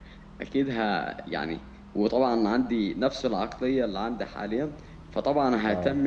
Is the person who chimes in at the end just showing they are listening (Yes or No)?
Yes